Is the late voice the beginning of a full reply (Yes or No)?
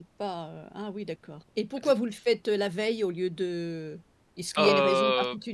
Yes